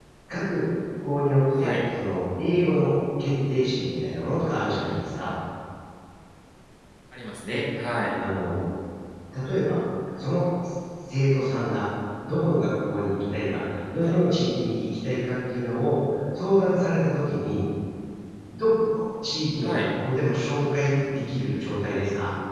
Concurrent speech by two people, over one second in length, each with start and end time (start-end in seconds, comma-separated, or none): none